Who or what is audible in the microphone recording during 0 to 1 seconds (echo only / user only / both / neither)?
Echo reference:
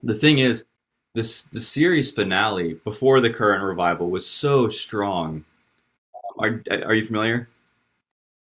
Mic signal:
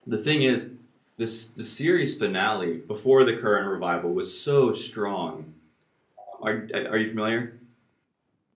echo only